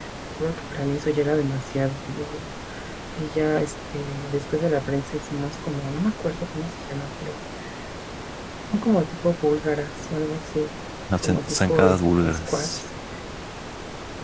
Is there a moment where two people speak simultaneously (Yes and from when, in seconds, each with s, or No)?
Yes, from 11.2 s